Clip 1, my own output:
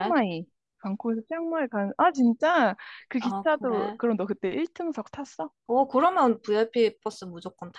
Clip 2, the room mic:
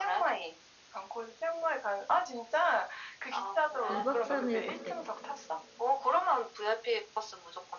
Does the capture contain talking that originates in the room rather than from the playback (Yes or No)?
Yes